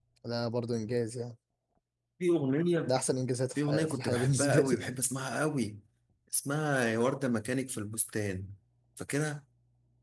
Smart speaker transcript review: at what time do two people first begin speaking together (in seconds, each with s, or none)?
3.6 s